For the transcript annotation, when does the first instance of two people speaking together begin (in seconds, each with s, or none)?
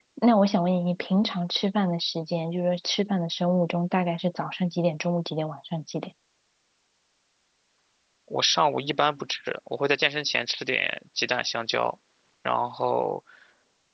none